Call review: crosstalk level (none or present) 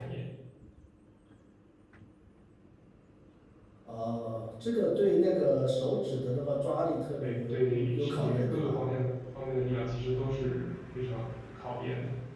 present